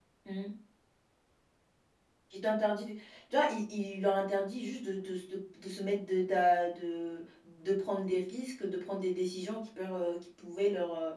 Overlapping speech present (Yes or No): No